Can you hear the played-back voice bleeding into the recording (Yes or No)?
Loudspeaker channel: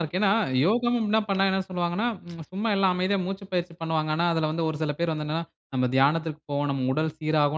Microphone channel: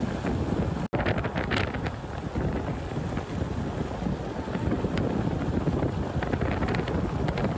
No